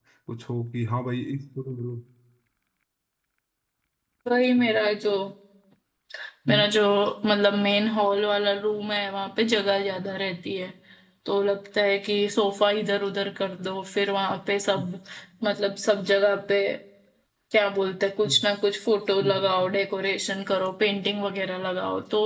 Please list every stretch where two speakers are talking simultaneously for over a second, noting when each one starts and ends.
none

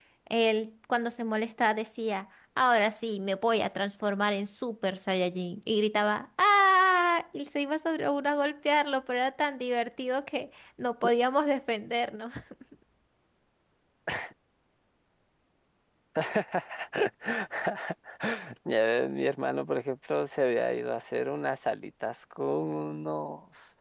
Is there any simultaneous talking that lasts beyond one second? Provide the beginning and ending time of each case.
none

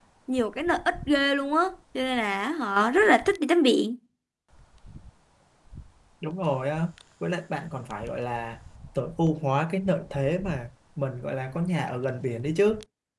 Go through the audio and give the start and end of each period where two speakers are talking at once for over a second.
none

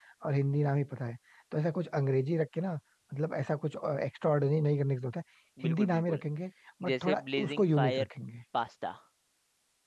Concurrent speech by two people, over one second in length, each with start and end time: 6.8-8.1

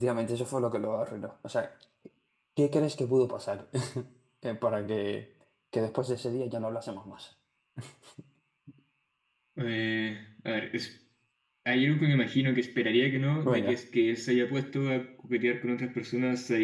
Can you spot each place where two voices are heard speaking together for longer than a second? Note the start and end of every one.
none

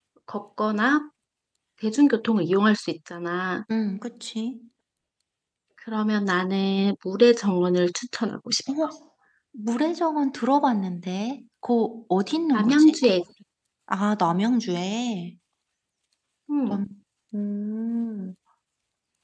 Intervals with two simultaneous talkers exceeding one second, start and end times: none

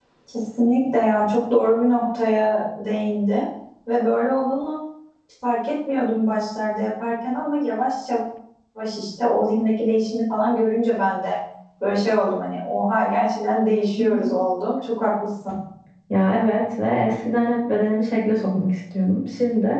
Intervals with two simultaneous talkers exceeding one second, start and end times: none

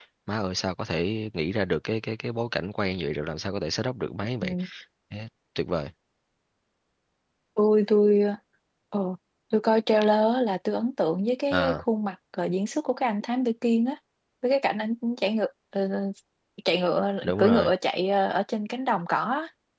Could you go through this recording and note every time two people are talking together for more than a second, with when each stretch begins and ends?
none

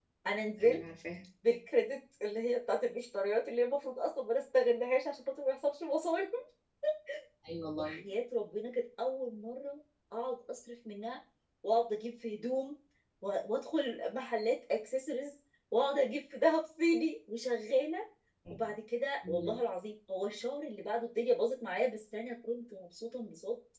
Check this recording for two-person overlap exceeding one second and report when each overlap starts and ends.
none

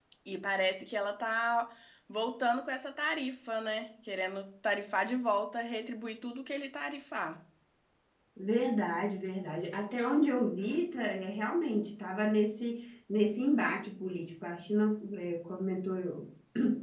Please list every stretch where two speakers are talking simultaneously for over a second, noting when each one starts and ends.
none

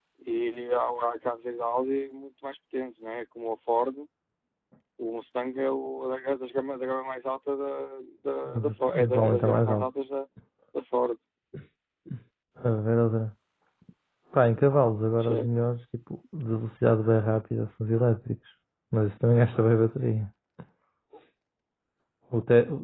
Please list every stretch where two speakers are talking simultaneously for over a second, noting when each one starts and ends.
8.5-9.9

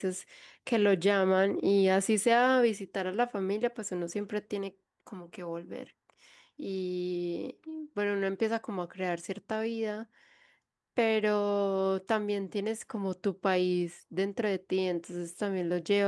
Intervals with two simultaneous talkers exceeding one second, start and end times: none

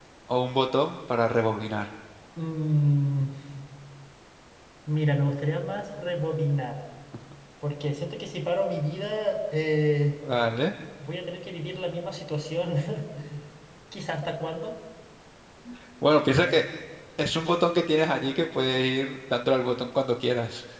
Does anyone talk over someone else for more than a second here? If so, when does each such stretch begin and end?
none

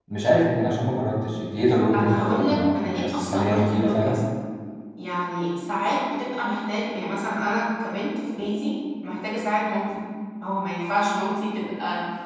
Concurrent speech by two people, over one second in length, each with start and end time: 1.9-4.2

